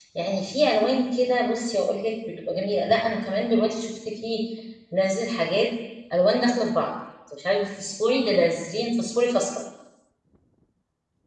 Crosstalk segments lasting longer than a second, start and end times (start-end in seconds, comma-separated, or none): none